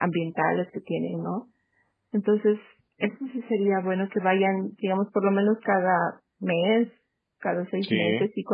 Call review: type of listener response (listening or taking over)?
listening